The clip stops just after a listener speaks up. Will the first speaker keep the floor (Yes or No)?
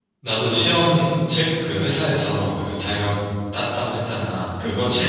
Yes